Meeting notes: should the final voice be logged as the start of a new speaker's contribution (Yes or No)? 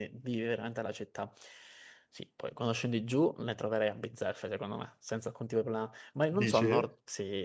No